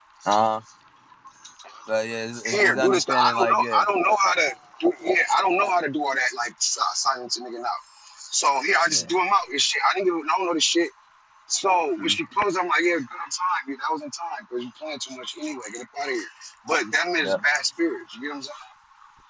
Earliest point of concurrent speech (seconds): 2.5 s

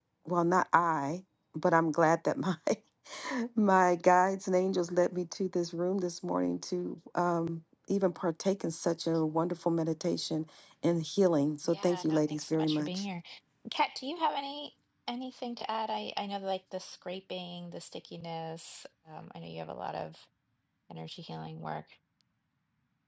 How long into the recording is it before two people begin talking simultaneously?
11.7 s

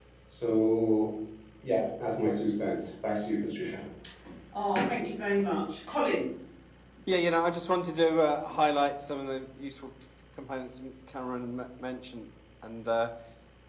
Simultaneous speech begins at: none

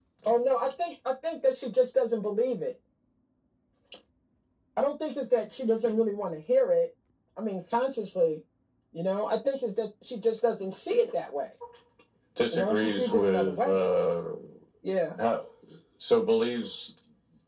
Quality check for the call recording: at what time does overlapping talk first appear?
12.5 s

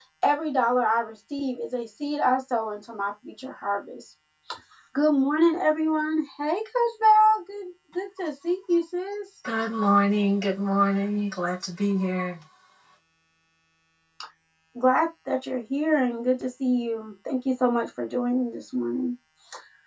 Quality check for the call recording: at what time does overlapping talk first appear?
none

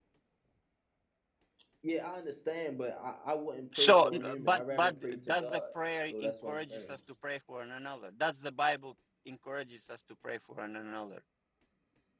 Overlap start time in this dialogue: 3.7 s

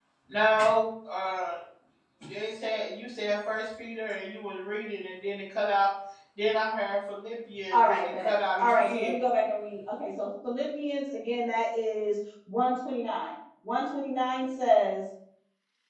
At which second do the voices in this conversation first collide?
7.7 s

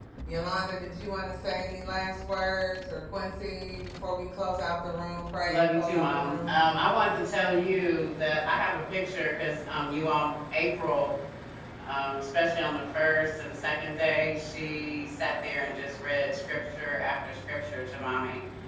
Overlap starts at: 5.5 s

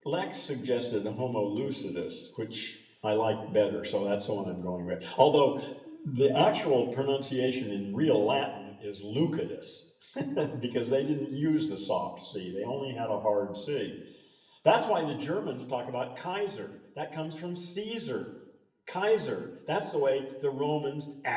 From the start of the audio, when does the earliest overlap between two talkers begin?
none

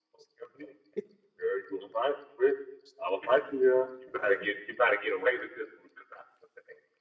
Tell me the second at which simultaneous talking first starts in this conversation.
none

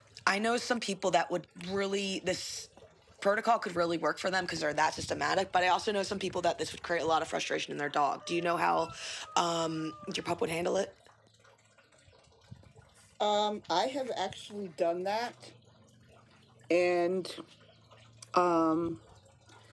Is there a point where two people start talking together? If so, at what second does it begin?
none

